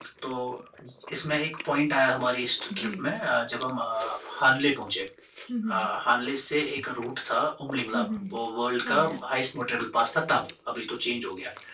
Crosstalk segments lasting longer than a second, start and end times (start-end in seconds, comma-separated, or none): none